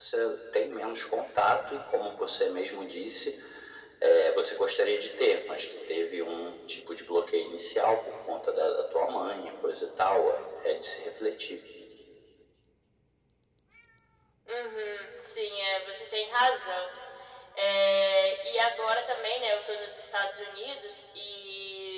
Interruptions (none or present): none